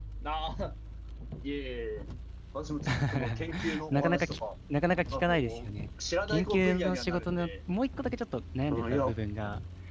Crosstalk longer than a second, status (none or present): present